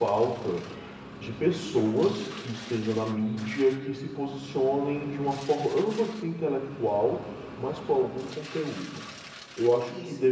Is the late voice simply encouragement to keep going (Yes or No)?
Yes